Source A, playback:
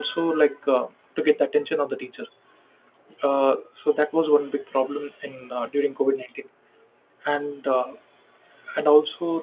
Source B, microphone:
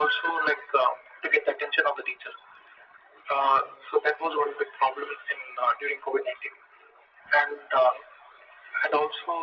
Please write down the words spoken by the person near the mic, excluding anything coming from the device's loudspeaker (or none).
none